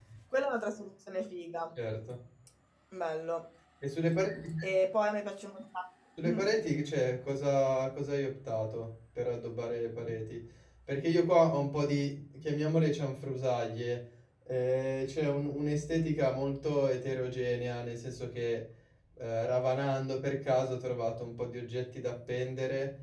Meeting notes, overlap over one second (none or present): none